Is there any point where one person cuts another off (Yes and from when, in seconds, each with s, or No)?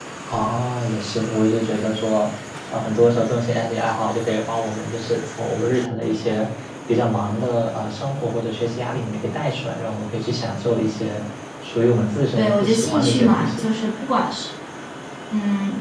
Yes, from 12.4 s